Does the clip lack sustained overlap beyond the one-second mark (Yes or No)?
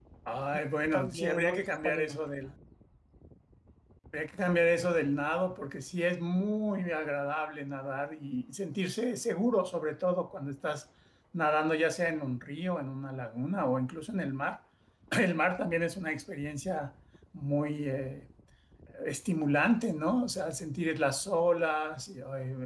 No